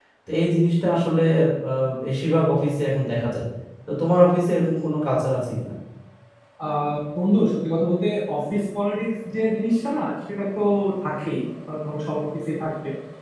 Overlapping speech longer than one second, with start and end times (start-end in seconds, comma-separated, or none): none